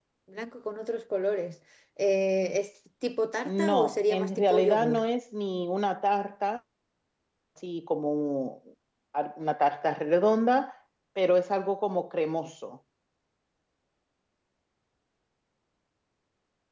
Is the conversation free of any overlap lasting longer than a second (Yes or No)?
No